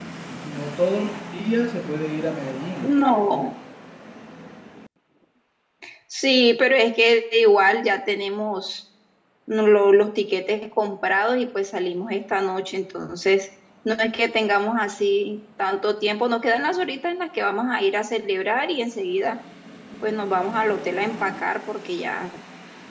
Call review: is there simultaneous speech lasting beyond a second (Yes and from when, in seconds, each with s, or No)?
No